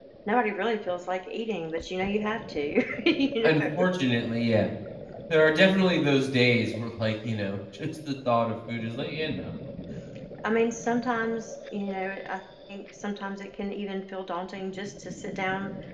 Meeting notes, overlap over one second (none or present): none